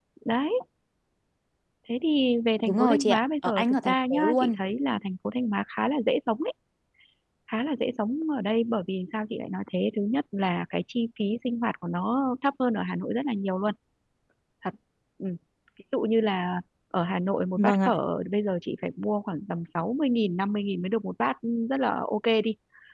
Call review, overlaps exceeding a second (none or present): present